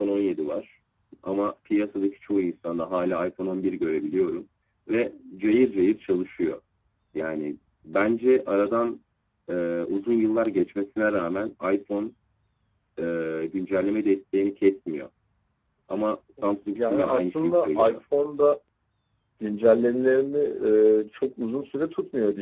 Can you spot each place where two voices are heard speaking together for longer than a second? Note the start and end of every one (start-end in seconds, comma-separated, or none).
16.7-18.0